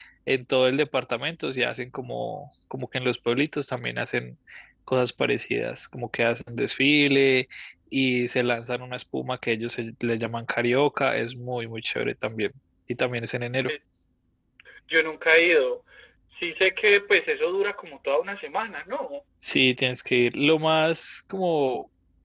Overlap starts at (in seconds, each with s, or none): none